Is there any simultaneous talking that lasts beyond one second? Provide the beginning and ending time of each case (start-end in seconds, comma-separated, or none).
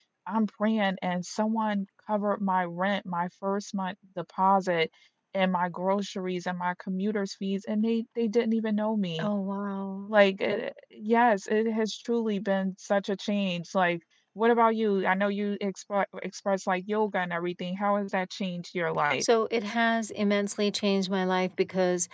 none